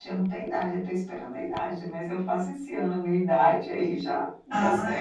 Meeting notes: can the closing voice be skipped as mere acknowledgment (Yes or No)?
No